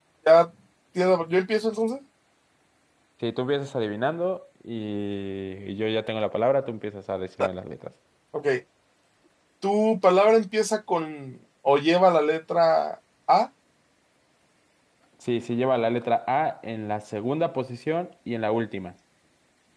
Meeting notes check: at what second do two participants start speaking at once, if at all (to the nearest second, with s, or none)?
none